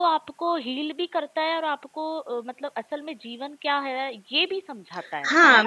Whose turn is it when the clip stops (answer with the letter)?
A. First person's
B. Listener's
B